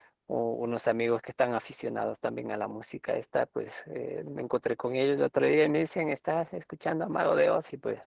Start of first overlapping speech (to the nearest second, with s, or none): none